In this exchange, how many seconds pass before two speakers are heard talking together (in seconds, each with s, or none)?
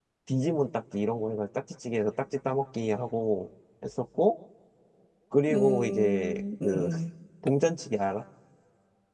5.5 s